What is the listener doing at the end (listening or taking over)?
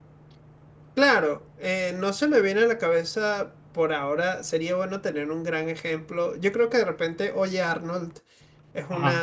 listening